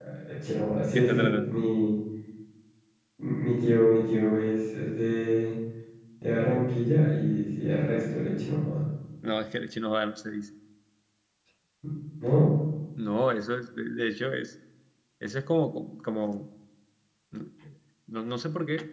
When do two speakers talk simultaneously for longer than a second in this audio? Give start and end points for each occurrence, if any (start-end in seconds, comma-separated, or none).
none